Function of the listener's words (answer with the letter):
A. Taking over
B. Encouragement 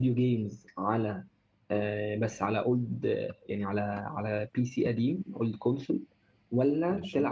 B